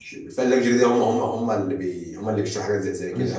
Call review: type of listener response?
taking over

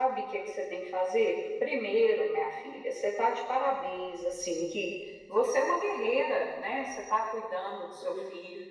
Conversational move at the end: listening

